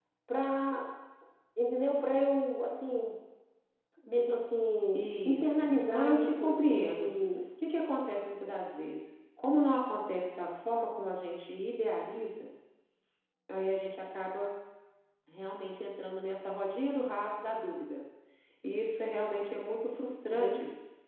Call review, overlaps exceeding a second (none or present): present